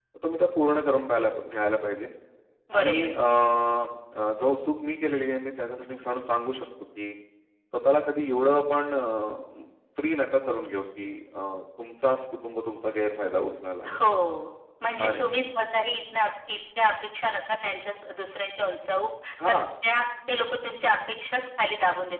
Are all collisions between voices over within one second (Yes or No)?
Yes